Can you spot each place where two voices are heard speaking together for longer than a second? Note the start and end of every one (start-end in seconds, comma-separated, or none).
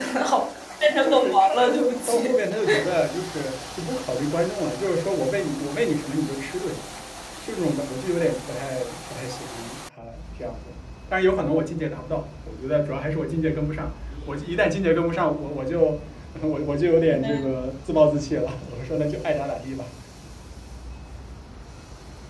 0.9-2.2